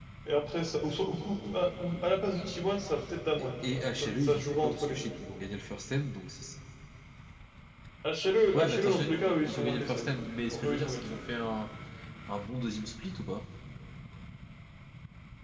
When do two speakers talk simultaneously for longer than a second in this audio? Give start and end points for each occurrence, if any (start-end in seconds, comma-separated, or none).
3.4-5.1, 8.6-11.1